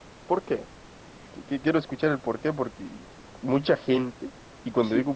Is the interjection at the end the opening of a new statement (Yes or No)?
No